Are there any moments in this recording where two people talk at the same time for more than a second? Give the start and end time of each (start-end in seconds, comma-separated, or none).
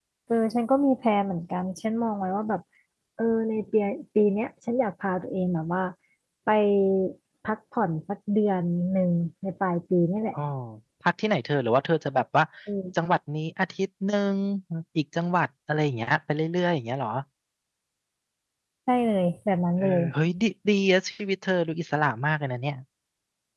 none